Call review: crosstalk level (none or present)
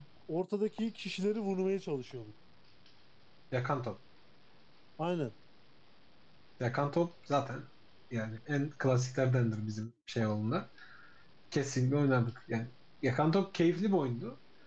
none